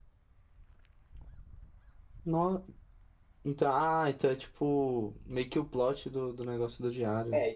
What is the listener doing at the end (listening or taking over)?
taking over